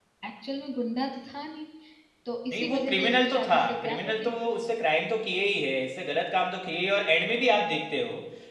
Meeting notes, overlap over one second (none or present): present